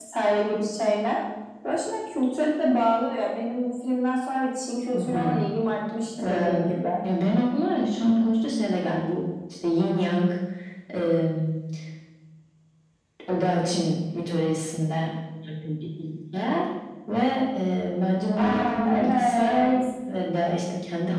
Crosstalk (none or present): present